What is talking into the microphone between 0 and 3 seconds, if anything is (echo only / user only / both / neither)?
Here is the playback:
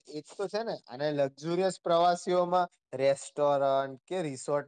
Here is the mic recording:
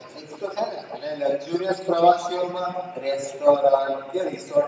echo only